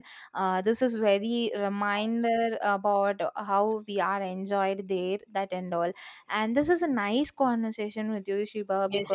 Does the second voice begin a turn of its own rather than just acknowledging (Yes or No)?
Yes